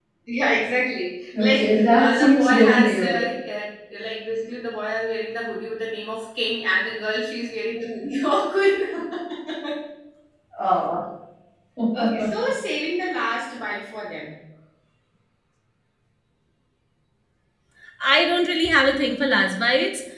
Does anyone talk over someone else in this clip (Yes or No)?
Yes